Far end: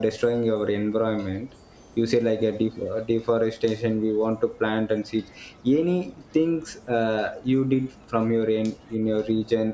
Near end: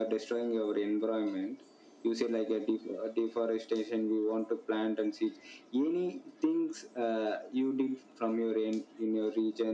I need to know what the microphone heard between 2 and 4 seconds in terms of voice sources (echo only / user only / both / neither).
echo only